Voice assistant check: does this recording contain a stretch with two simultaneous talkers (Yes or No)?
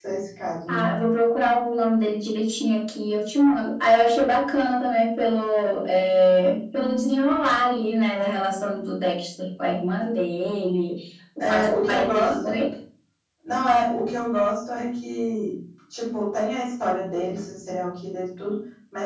Yes